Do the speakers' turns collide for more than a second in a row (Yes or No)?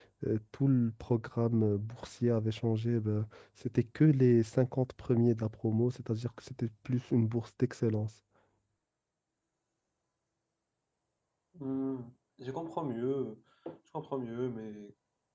No